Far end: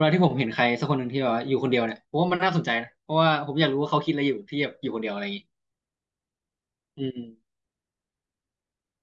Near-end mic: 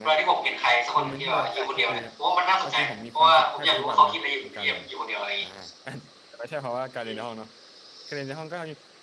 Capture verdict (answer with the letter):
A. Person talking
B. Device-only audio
A